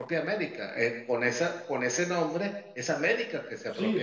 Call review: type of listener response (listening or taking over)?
taking over